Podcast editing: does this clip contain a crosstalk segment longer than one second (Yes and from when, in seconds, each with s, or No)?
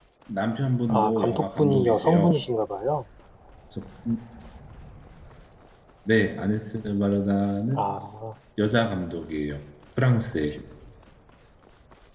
Yes, from 0.9 s